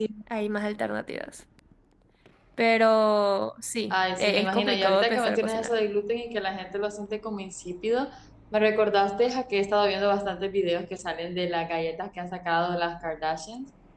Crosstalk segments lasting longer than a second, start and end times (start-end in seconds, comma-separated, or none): 3.9-5.7